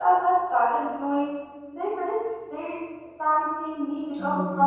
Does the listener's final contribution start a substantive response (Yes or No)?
Yes